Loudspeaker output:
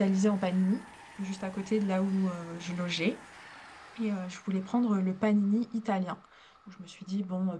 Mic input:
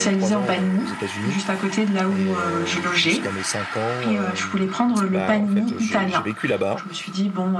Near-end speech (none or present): present